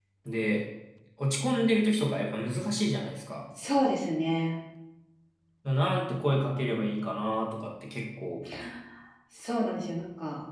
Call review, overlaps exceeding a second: none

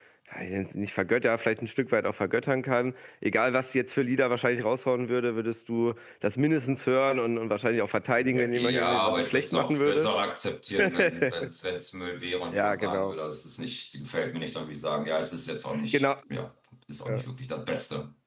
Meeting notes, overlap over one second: present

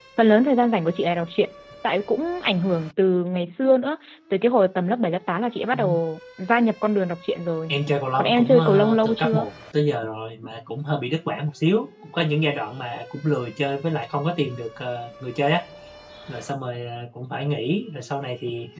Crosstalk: present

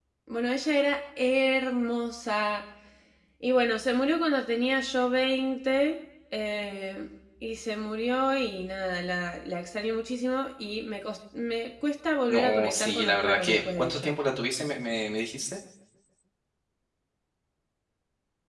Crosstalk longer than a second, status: present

